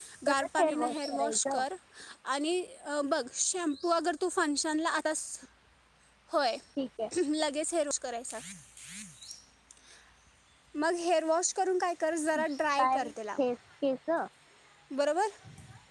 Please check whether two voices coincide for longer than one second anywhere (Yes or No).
Yes